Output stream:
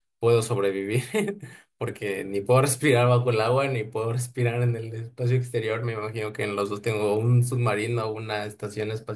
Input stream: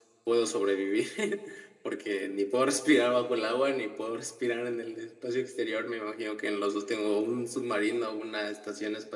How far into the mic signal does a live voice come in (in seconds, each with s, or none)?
none